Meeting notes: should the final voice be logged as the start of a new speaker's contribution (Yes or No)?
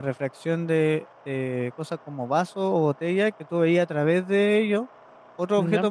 No